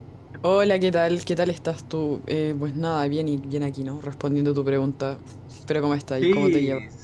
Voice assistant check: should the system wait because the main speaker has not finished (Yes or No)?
No